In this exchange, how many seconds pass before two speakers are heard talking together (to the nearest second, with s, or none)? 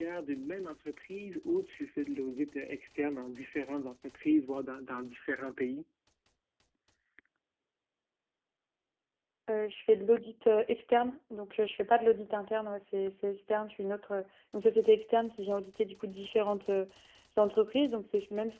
none